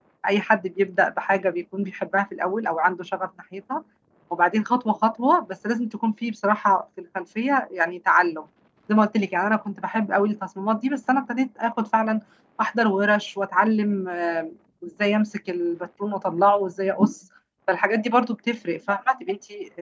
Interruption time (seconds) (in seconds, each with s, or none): none